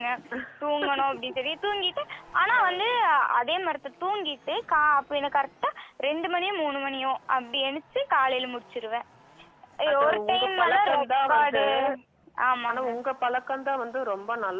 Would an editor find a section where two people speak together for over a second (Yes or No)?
Yes